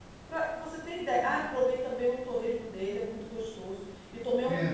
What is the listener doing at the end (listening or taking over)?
listening